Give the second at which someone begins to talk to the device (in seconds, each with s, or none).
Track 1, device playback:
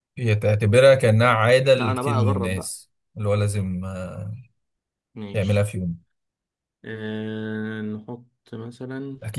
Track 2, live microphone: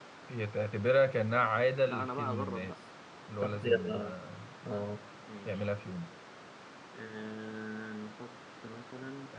3.4 s